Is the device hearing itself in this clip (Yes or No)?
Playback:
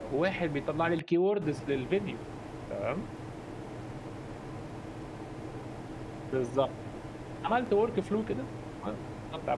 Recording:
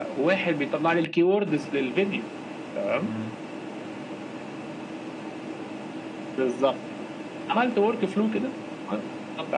Yes